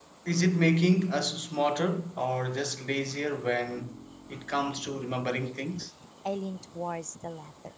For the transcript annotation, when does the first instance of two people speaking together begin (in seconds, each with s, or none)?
none